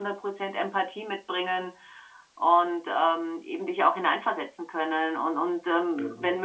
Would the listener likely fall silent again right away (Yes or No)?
Yes